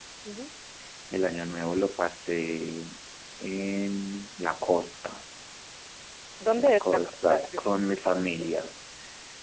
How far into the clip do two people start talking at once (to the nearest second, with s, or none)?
7 s